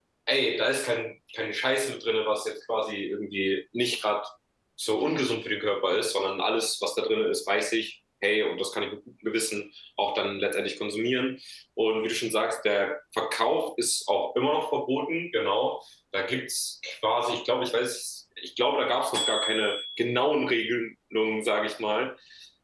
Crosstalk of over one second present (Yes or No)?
No